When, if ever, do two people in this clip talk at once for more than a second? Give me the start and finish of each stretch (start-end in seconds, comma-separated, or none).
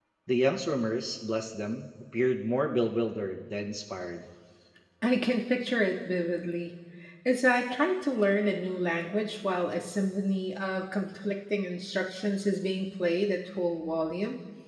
none